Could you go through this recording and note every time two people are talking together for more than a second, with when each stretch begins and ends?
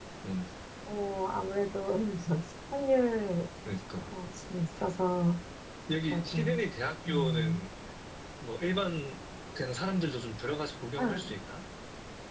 none

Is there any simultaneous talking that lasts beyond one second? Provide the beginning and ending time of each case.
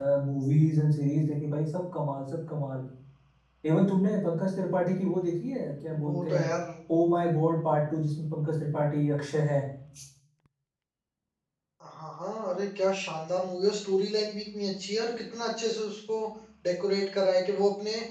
none

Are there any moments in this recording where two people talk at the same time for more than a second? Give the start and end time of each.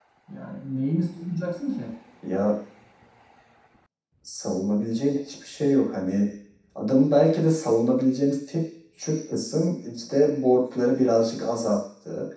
none

